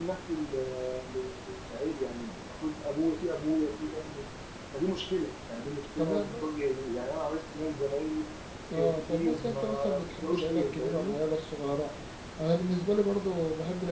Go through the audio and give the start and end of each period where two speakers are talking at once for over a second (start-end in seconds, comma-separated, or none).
8.7-11.2